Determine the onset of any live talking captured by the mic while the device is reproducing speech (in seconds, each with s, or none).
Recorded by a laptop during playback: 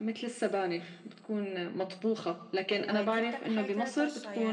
2.7 s